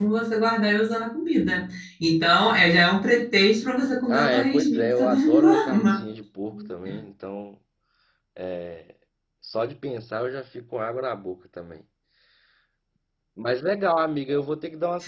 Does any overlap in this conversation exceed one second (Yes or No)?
Yes